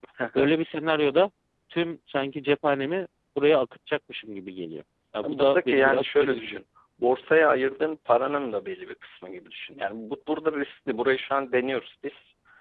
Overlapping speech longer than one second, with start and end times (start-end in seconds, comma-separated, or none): 5.2-6.6